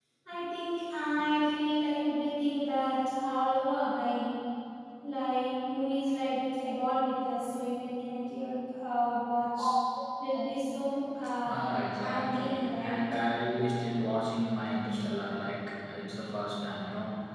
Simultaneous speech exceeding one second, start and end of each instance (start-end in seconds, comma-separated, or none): 11.4-13.0